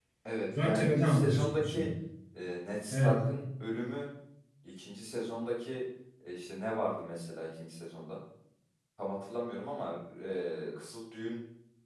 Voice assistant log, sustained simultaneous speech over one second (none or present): present